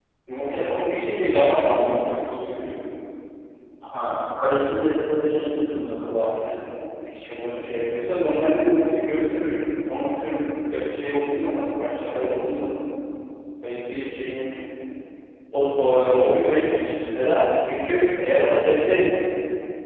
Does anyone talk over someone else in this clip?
Yes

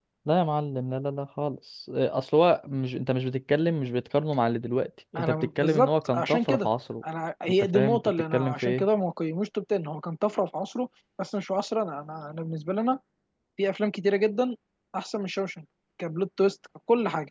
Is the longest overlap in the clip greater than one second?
Yes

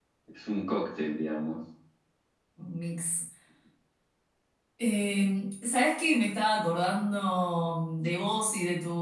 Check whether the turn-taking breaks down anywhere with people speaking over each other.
No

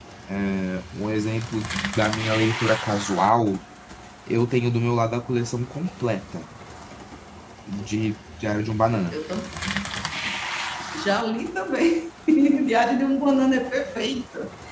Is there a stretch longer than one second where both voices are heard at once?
No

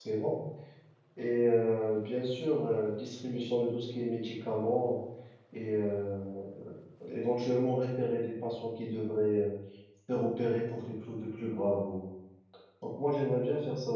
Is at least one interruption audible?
No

